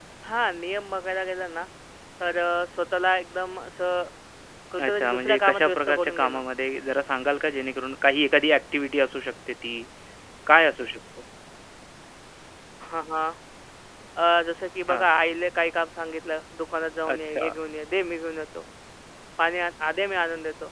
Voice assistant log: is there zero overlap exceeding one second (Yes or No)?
No